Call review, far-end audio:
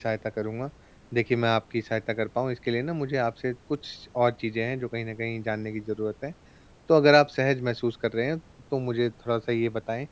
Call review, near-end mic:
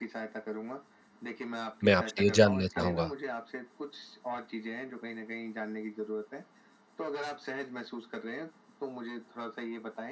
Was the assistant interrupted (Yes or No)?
Yes